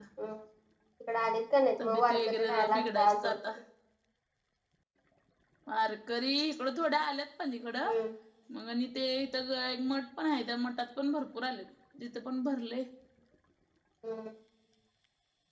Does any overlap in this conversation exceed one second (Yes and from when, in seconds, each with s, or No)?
Yes, from 1.8 s